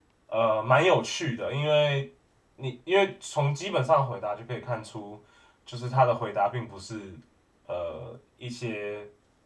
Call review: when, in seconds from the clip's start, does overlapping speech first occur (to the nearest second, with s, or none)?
none